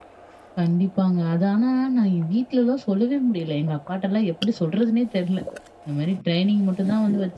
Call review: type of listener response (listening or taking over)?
listening